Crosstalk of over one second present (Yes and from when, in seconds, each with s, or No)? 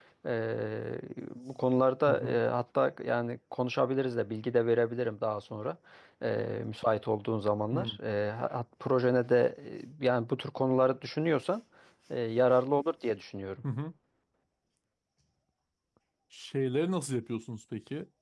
No